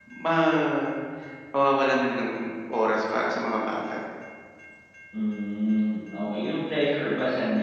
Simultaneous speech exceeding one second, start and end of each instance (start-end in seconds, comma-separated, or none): none